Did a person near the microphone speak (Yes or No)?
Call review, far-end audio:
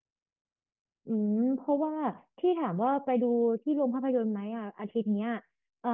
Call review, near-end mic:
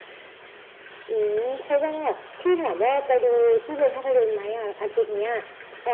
No